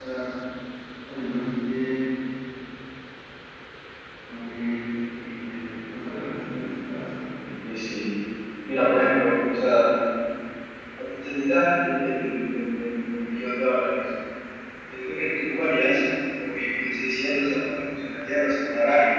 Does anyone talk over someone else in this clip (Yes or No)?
No